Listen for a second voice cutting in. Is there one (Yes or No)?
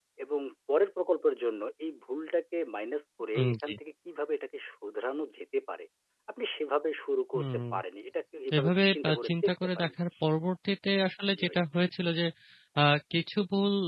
Yes